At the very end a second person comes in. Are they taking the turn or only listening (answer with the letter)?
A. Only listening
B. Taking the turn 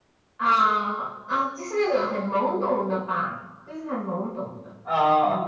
A